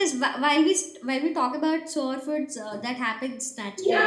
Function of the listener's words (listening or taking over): taking over